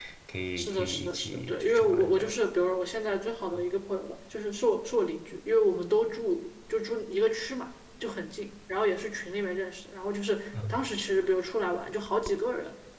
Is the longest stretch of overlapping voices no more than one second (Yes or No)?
No